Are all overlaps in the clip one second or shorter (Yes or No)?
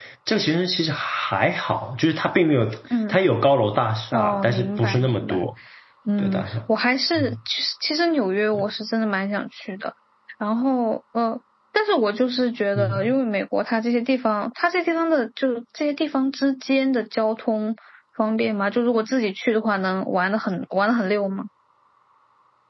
No